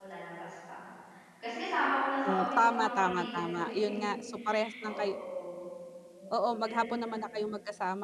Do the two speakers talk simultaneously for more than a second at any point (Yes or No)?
Yes